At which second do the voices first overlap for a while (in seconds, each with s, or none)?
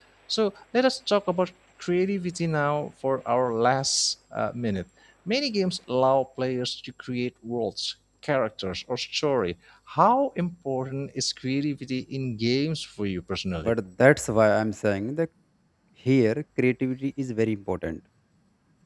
none